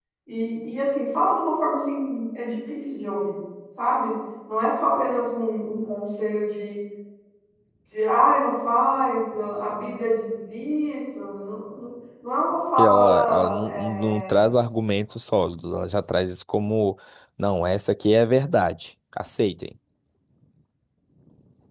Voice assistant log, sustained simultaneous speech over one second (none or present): present